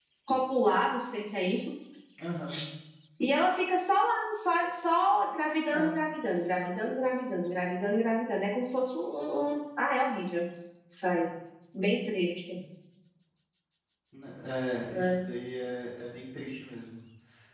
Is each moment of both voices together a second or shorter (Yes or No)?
Yes